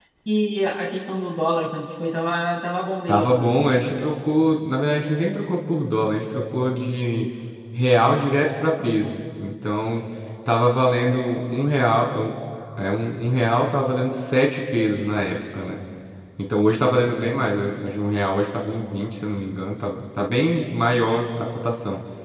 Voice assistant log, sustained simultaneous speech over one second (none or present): none